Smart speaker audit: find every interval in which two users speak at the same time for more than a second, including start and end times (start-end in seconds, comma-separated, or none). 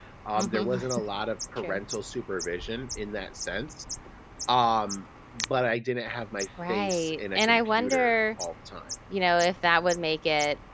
6.7-8.2